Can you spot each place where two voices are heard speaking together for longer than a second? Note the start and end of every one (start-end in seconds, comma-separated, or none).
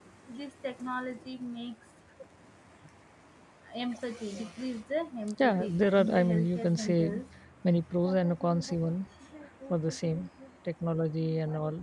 5.4-7.0